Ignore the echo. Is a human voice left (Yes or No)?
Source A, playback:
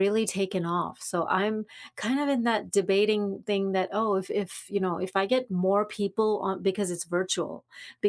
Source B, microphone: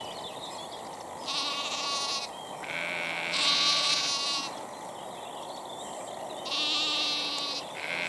No